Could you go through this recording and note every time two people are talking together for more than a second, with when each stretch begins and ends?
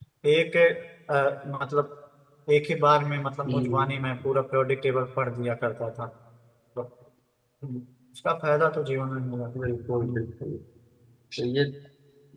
none

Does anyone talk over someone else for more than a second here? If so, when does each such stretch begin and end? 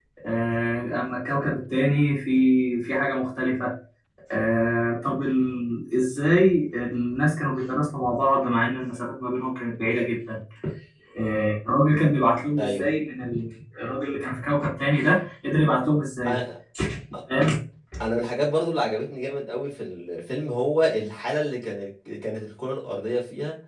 none

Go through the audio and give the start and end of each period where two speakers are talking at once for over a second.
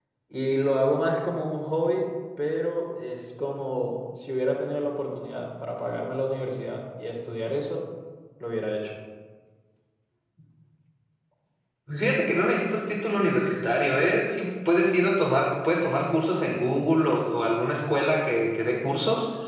none

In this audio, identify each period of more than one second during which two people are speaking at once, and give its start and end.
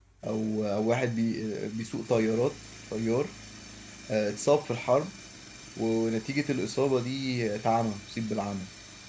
none

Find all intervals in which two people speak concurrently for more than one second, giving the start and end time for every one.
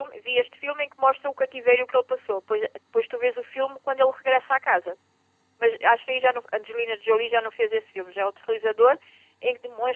none

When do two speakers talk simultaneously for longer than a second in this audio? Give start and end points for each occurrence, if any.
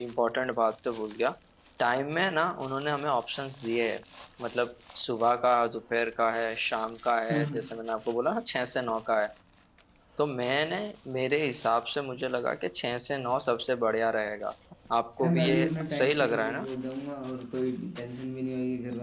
15.2-16.7

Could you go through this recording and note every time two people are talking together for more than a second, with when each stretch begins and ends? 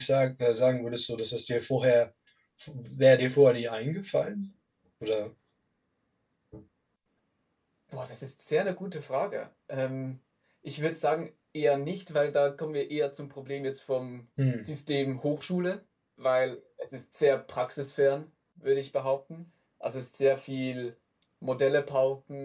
none

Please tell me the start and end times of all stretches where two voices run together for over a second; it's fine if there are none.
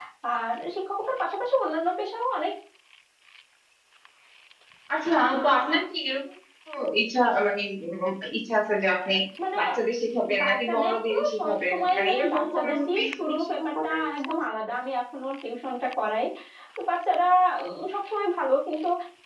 10.4-14.4

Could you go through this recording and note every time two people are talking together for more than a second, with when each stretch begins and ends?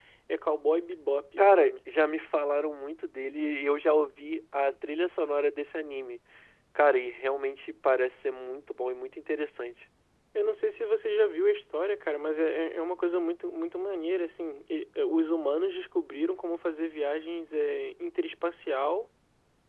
none

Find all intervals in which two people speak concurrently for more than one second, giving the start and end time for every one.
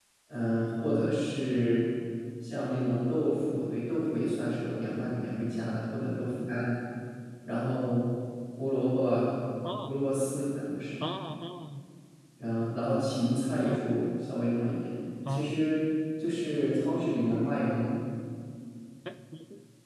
none

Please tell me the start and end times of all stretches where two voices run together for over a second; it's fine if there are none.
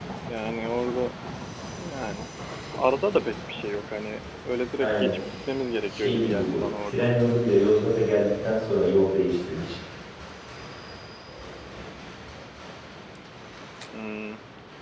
5.9-7.1

